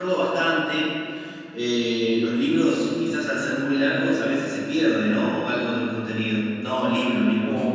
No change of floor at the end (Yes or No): No